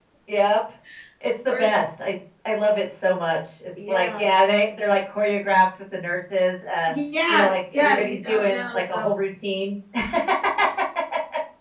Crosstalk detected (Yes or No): Yes